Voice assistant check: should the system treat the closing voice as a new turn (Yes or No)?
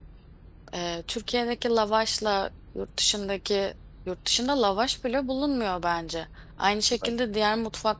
No